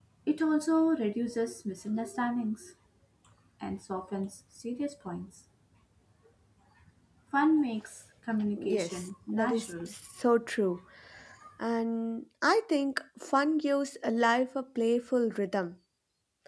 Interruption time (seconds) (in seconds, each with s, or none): 8.5 s